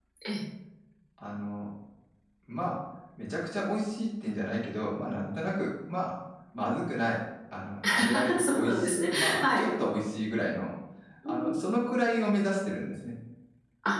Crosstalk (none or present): present